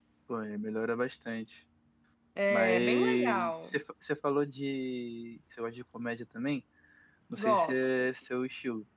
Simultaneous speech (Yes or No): Yes